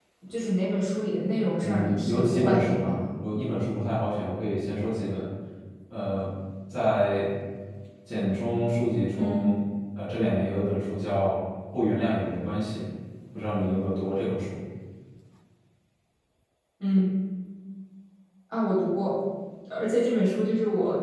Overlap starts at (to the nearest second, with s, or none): 2 s